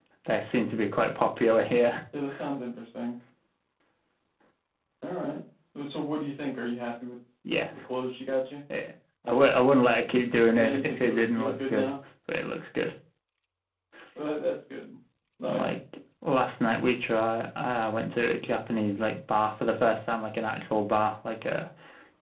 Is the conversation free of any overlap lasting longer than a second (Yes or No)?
No